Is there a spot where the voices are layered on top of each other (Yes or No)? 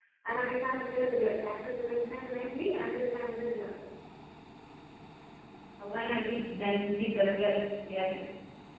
No